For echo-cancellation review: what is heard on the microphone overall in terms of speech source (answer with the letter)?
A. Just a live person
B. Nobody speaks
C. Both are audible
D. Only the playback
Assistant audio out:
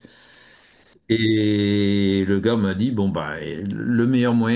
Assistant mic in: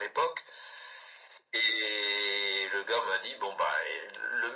D